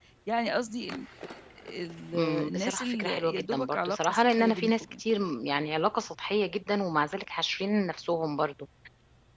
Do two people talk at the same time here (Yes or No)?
Yes